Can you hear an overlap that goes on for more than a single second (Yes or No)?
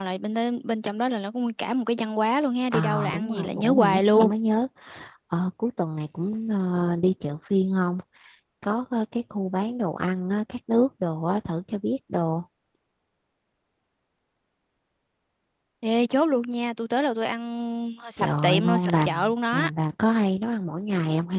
Yes